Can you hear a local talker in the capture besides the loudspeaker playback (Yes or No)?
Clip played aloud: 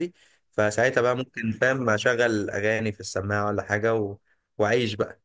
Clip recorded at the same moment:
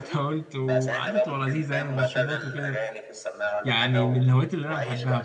Yes